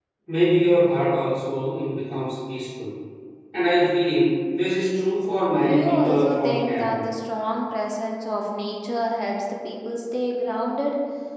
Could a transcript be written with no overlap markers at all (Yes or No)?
No